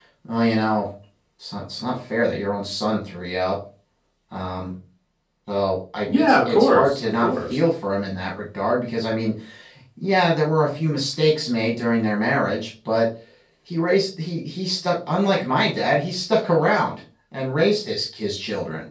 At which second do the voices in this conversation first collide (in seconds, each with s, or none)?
6.1 s